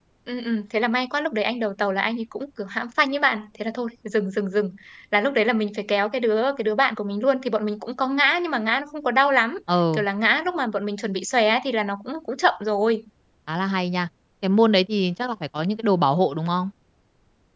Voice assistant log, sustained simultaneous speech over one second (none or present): none